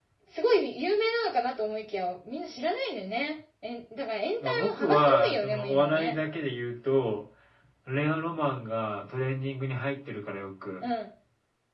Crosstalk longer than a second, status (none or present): present